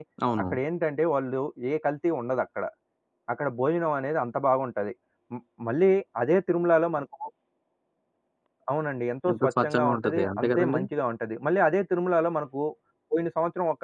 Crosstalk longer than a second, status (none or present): present